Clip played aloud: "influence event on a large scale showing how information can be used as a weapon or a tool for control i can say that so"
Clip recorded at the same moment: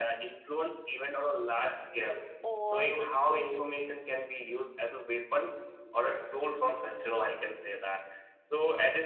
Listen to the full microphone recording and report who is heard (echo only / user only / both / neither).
both